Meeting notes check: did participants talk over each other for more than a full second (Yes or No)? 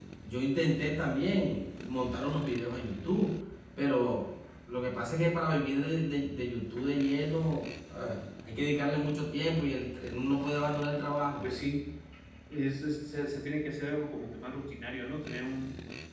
No